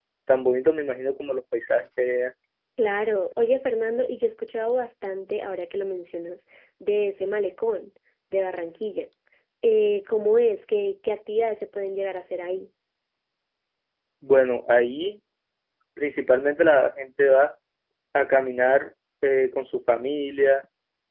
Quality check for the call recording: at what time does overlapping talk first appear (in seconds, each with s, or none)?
none